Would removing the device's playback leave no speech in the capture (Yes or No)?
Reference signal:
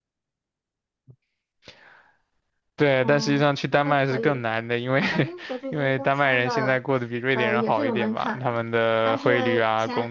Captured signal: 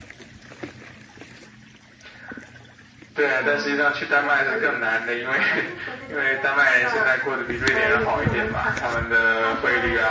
Yes